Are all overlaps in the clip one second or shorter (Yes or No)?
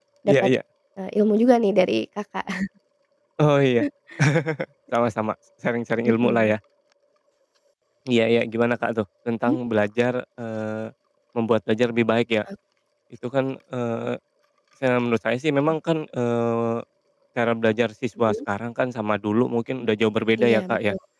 Yes